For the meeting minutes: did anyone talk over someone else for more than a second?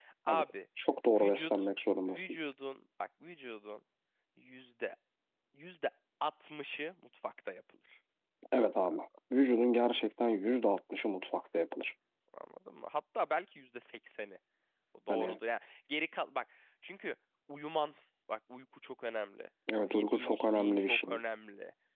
Yes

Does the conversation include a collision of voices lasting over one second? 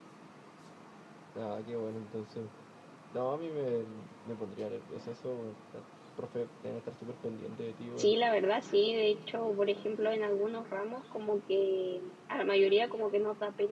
No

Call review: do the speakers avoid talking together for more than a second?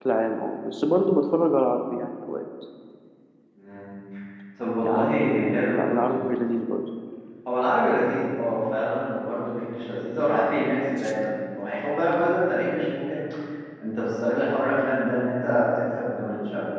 No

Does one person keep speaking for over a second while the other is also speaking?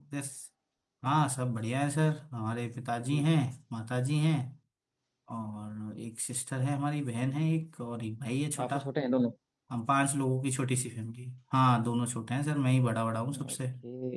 No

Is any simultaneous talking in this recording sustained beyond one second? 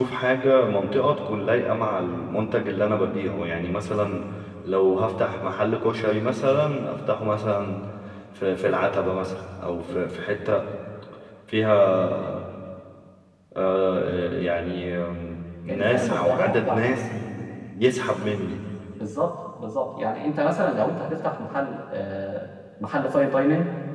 Yes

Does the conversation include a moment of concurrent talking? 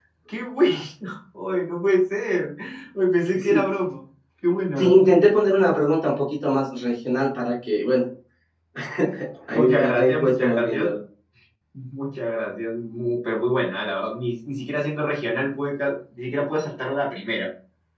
Yes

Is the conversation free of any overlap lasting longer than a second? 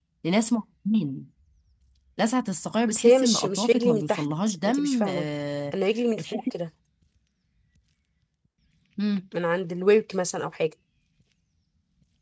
No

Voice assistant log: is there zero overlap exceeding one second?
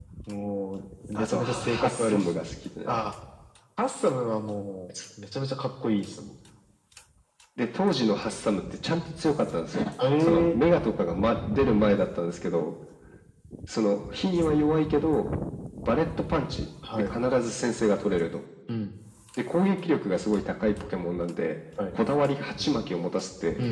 No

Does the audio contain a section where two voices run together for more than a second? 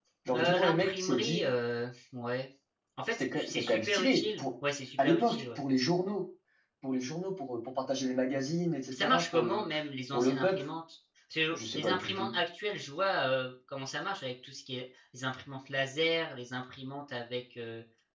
Yes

